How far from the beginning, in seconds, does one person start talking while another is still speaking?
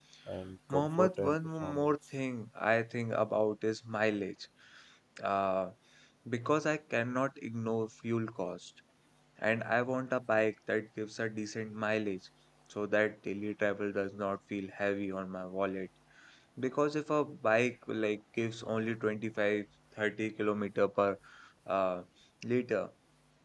0.7 s

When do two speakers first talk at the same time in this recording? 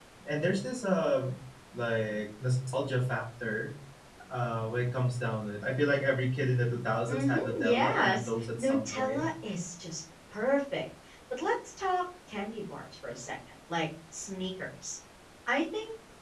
7.1 s

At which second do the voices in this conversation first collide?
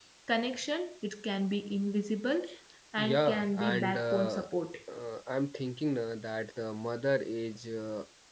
3.0 s

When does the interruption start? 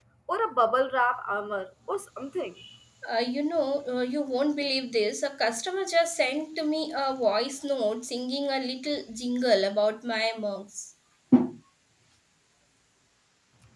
none

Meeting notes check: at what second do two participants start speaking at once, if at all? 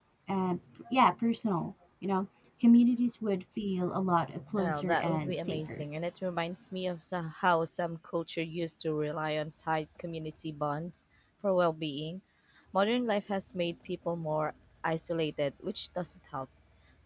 4.5 s

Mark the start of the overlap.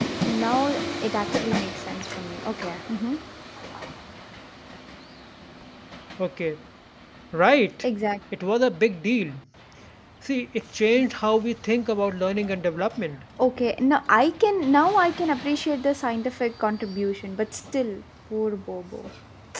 none

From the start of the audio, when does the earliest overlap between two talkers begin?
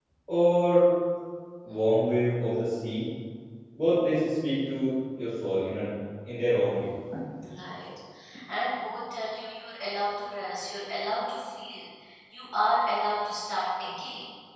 none

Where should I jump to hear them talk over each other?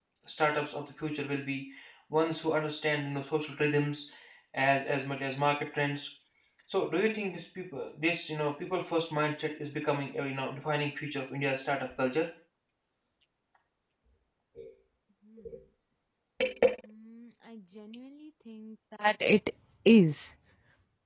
none

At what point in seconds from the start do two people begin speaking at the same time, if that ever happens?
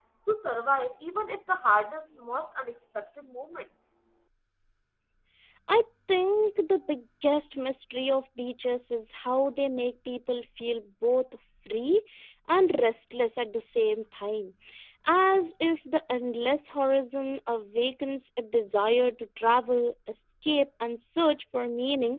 none

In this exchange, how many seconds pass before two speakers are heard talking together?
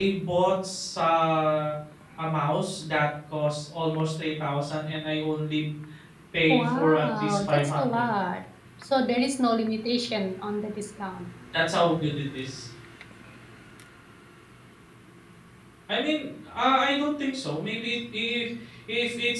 6.5 s

